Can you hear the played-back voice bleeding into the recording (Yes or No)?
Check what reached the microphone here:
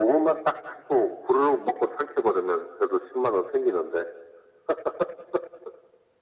Yes